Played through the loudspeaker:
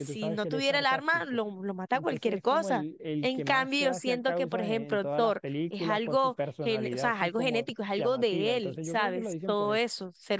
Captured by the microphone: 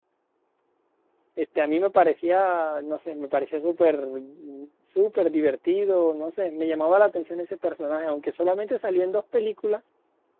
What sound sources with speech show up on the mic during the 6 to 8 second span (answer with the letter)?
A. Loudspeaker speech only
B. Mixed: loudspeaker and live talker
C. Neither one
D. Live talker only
D